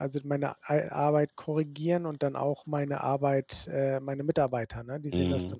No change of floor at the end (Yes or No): No